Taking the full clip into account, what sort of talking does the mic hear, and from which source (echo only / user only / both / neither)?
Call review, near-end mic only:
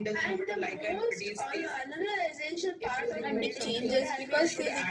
both